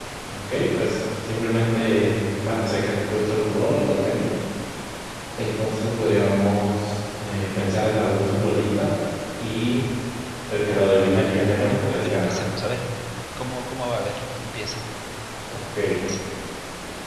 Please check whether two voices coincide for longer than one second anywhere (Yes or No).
Yes